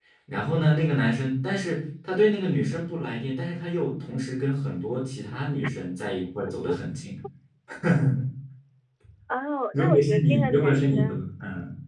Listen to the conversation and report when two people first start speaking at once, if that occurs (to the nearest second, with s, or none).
10 s